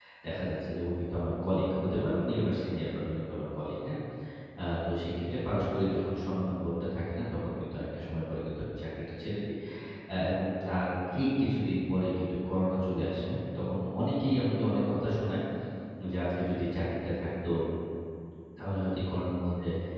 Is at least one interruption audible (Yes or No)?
No